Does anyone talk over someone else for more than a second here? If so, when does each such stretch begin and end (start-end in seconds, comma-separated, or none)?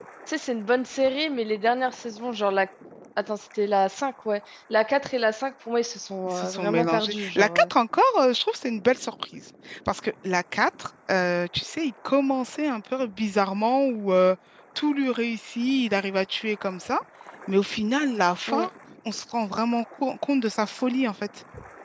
6.3-7.7